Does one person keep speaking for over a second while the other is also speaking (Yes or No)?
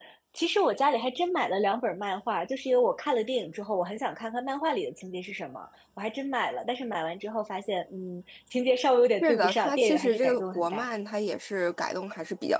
Yes